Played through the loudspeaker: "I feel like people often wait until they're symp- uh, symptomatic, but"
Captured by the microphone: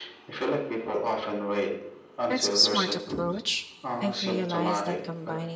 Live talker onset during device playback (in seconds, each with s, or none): 2.3 s